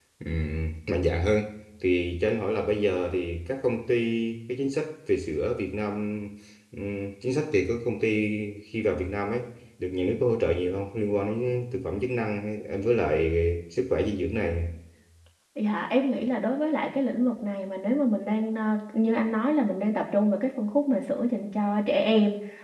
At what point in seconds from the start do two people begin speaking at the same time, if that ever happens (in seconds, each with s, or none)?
none